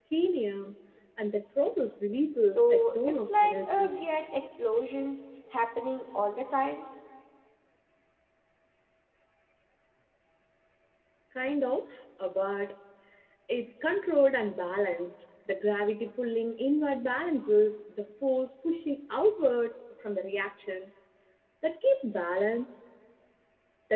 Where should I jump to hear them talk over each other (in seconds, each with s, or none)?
2.4 s